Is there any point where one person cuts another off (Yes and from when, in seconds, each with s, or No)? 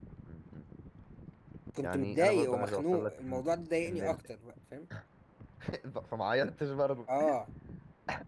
Yes, from 1.8 s